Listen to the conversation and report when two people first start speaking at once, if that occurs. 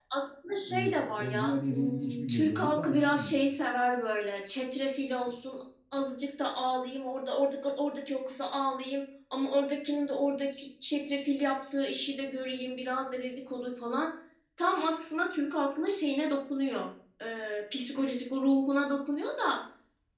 0.7 s

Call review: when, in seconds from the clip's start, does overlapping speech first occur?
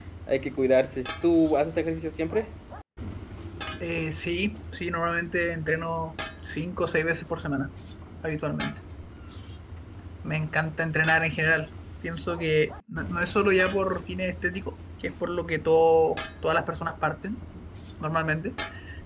none

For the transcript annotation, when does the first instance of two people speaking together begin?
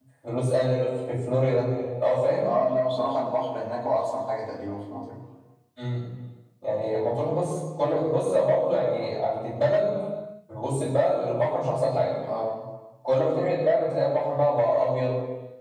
none

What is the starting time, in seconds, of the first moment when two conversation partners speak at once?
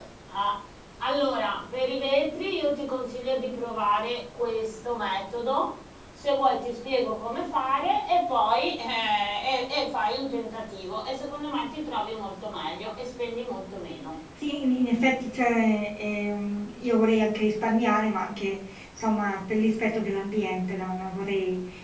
none

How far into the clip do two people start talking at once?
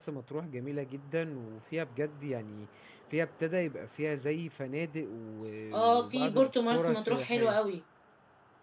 5.7 s

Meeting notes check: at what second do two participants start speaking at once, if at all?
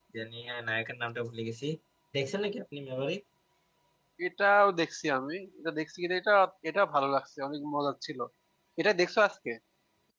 none

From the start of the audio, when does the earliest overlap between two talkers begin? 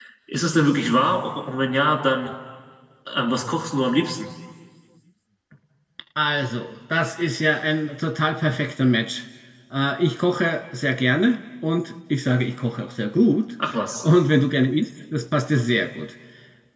none

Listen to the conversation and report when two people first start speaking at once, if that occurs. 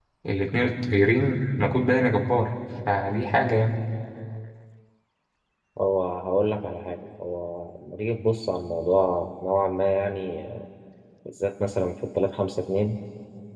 none

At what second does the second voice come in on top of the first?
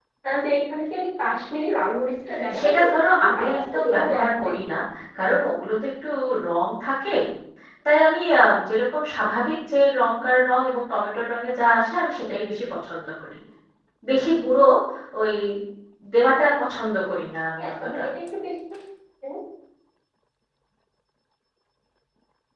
2.6 s

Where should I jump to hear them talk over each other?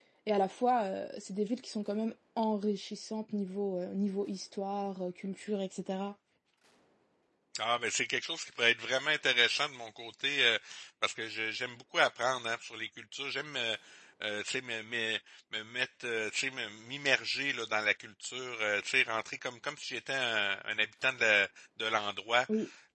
none

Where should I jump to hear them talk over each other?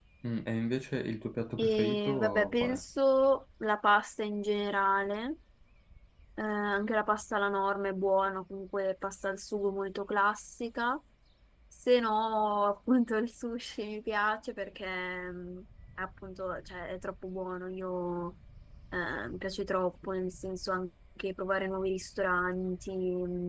1.6 s

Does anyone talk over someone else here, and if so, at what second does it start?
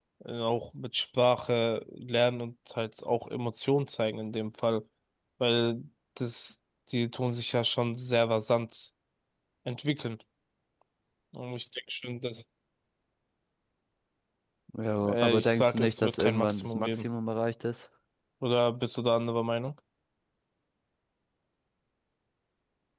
15.0 s

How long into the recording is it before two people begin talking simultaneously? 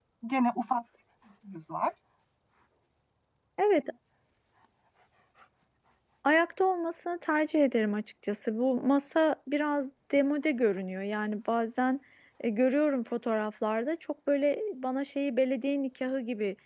none

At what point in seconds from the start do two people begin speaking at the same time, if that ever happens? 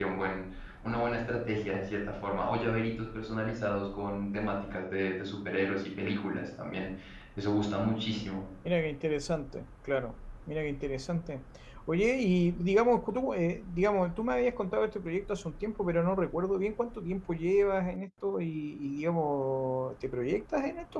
none

